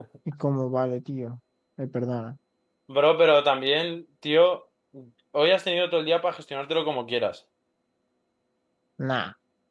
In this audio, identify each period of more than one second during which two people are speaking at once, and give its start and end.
none

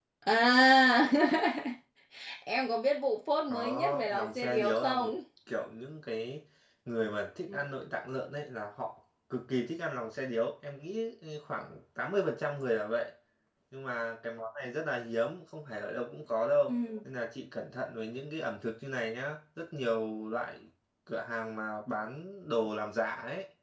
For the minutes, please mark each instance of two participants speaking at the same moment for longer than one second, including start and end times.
3.4-5.1

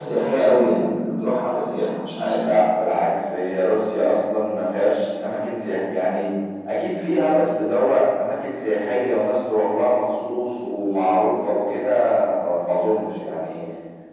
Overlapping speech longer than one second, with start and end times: none

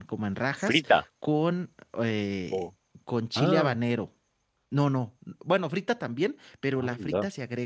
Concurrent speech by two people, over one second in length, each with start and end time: none

